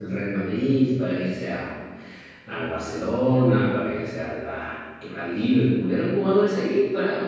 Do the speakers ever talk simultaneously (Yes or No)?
No